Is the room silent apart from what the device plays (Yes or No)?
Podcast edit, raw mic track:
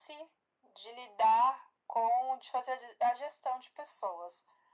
Yes